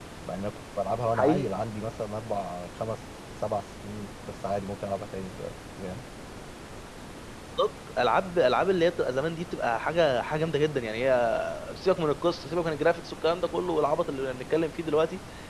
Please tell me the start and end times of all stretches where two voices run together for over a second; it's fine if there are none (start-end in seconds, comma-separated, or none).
none